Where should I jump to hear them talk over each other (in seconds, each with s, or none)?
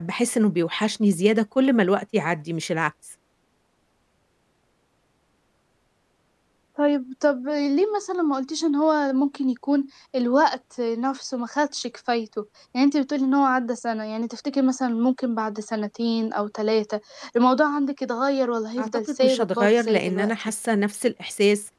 18.8 s